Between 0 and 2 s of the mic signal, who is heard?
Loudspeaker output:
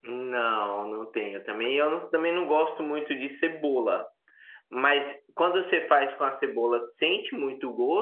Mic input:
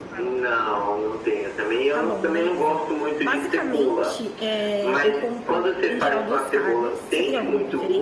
both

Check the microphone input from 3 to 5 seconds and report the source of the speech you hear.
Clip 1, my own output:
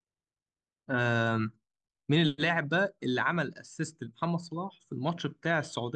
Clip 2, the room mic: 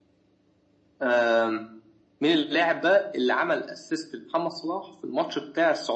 echo only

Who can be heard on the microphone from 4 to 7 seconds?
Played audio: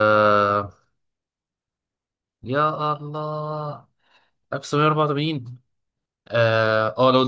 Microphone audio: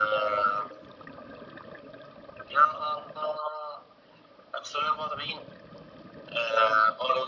echo only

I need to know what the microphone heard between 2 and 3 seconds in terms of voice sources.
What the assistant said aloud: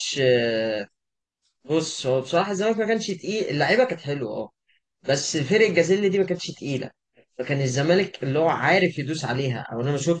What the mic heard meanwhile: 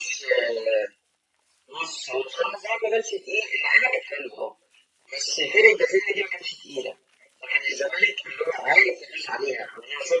echo only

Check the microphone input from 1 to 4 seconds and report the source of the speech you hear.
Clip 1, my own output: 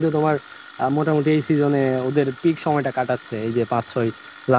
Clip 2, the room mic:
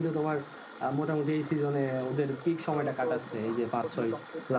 both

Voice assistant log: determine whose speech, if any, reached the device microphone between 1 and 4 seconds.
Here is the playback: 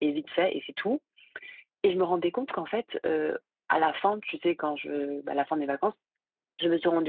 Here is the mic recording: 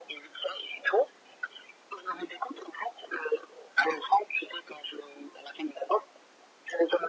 echo only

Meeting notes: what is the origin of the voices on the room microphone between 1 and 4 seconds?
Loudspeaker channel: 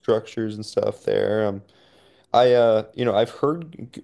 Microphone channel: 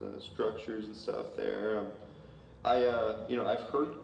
echo only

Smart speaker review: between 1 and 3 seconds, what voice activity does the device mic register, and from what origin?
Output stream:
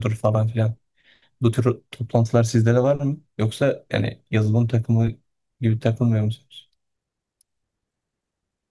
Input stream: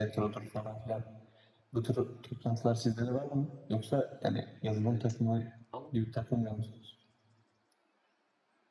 echo only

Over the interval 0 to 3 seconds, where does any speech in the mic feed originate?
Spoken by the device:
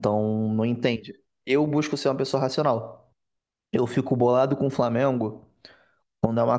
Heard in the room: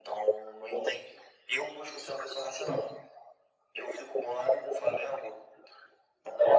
echo only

